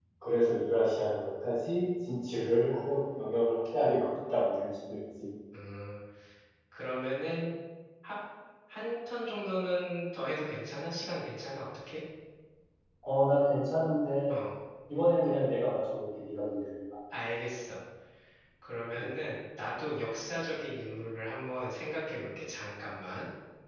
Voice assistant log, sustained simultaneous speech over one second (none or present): none